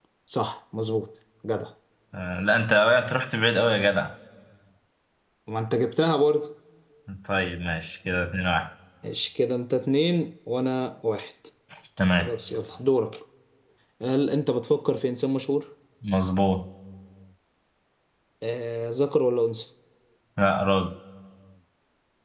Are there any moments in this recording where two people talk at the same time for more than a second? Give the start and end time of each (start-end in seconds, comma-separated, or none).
none